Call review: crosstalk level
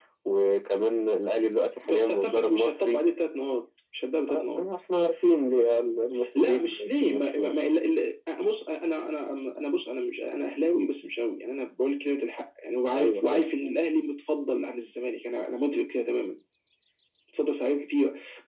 present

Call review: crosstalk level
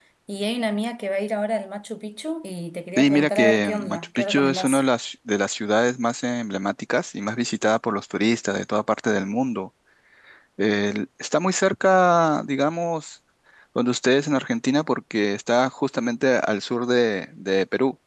present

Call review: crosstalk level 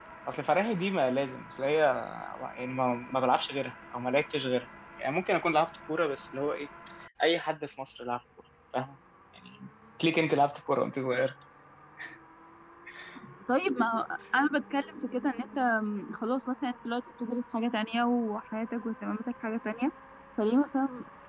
none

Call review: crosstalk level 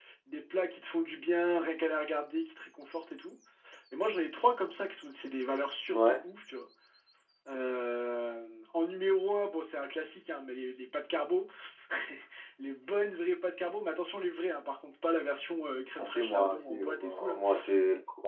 present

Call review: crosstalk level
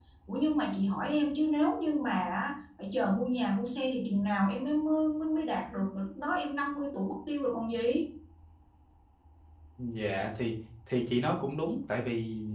none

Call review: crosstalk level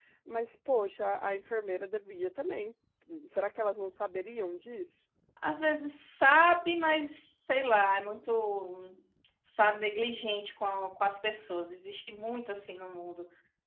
none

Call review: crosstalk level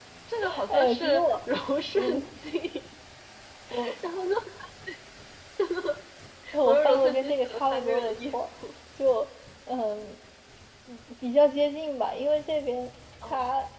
present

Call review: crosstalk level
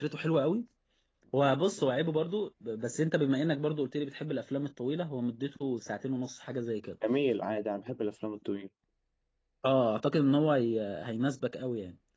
none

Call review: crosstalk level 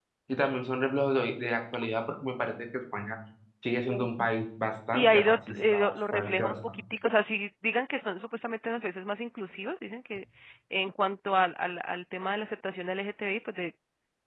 present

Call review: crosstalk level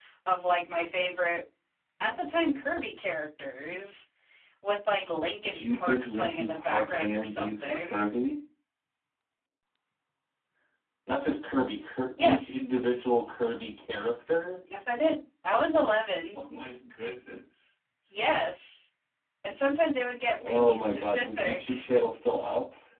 present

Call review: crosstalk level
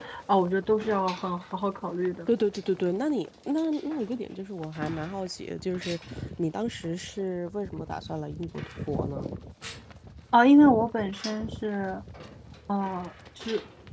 none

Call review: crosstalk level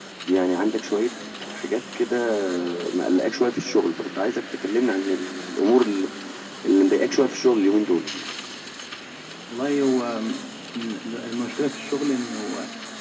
none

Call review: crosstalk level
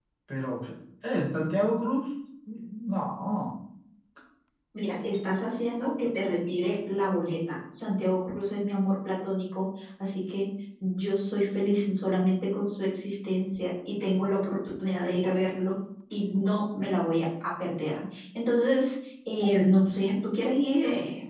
none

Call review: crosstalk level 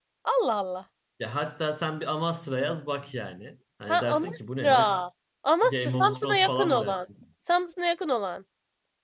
present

